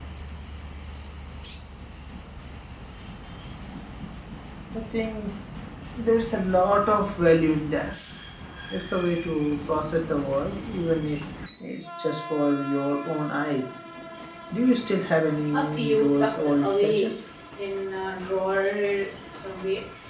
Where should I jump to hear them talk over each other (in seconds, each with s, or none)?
15.5 s